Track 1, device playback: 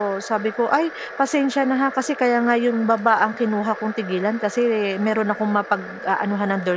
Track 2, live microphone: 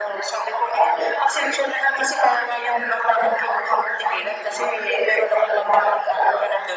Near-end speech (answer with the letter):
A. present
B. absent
B